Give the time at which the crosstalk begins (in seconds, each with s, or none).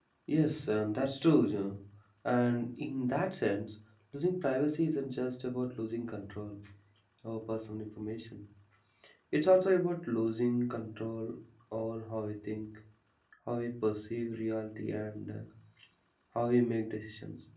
none